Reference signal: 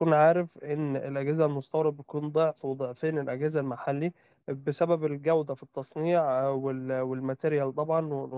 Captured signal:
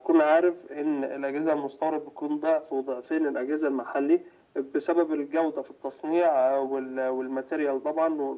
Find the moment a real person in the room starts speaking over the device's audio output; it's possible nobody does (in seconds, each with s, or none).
none